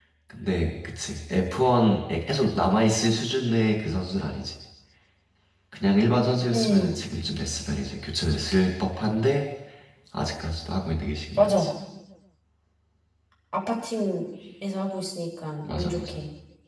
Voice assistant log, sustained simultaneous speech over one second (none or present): none